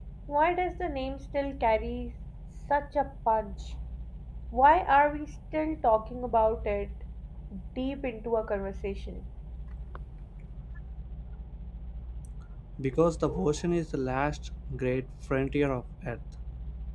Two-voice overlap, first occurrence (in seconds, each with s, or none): none